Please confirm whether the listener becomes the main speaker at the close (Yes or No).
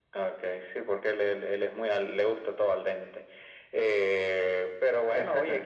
No